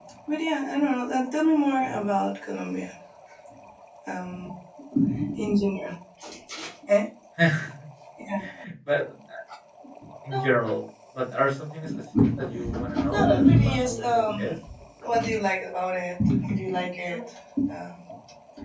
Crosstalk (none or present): present